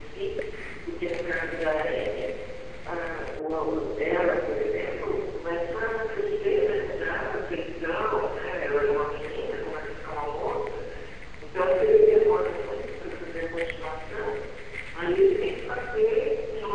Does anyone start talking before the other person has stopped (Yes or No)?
No